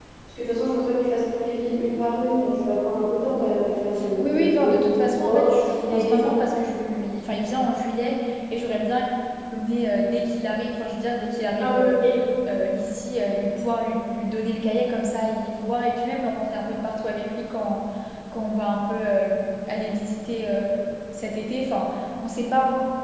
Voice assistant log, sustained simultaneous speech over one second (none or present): present